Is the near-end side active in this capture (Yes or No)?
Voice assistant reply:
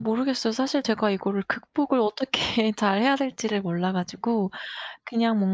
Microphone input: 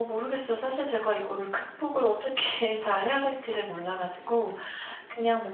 No